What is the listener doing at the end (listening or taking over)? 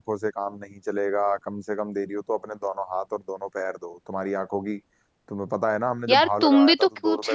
taking over